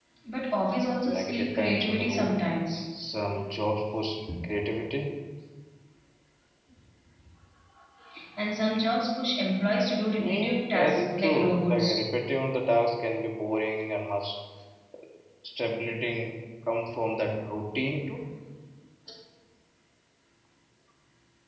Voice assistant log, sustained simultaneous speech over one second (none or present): present